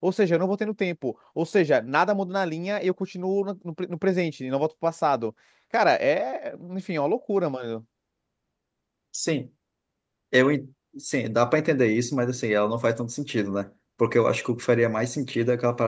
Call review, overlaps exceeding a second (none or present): none